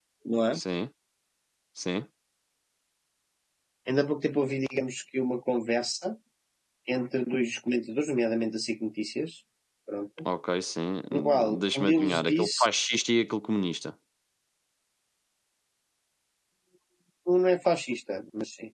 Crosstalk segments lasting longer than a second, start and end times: 11.1-12.7

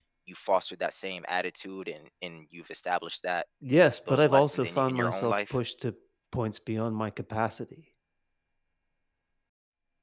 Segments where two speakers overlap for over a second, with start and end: 4.1-5.6

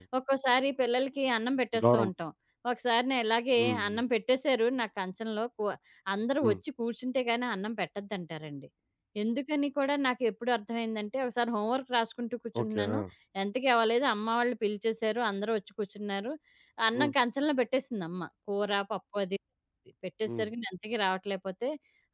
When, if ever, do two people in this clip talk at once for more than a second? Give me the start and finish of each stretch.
none

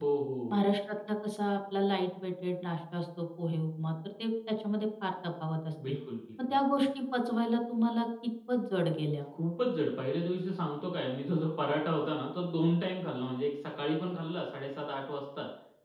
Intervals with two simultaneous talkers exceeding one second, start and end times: none

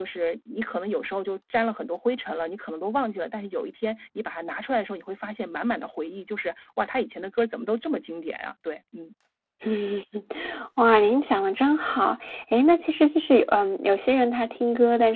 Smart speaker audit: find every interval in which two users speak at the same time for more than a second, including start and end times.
none

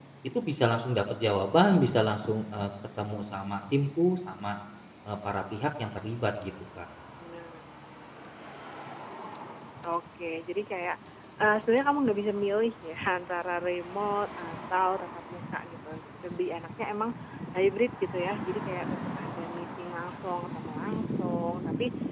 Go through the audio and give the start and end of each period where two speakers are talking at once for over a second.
none

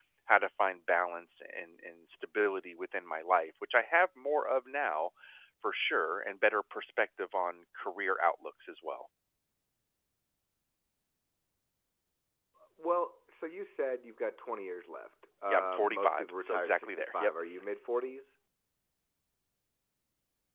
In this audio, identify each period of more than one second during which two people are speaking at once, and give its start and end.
15.5-17.3

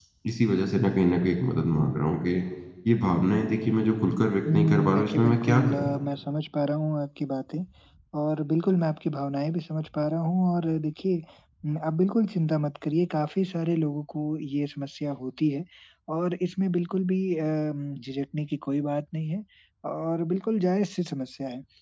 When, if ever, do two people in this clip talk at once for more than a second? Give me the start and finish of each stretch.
4.5-5.9

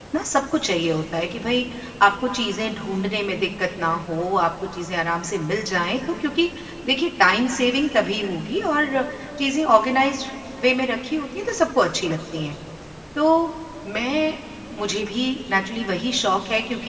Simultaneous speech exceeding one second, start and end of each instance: none

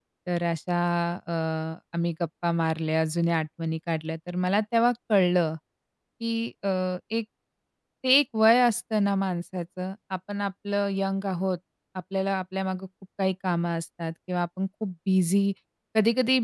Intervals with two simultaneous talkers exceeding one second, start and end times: none

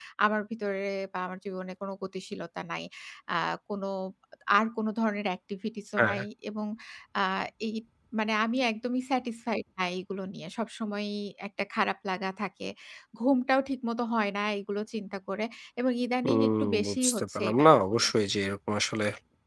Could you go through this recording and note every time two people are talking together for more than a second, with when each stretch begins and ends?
16.2-18.1

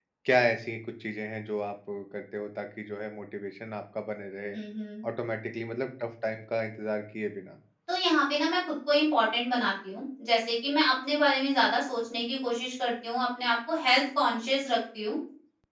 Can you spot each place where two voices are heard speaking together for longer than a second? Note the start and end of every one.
none

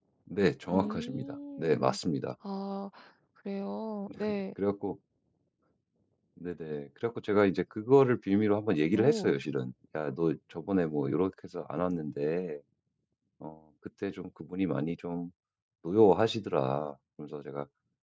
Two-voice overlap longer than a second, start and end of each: 0.7-2.0

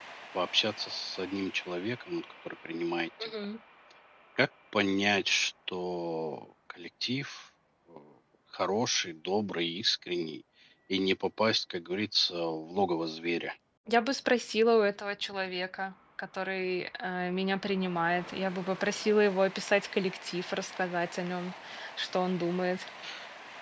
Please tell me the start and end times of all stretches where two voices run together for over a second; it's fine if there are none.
none

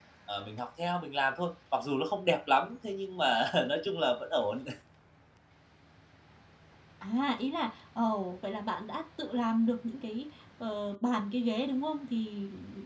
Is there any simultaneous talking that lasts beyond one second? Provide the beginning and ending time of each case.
none

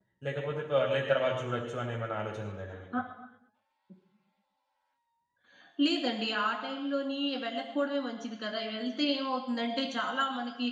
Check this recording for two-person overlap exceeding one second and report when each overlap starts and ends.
none

